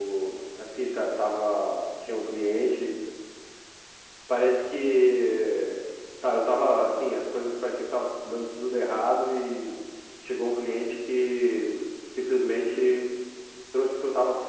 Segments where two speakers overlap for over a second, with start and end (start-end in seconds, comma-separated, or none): none